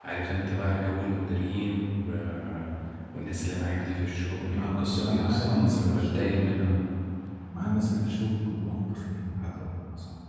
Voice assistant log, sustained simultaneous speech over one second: present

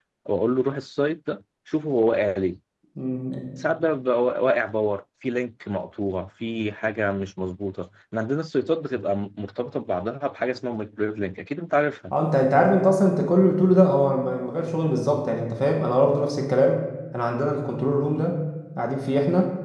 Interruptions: none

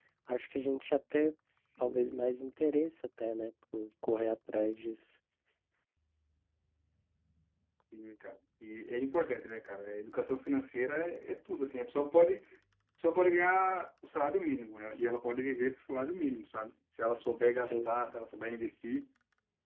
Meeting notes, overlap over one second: none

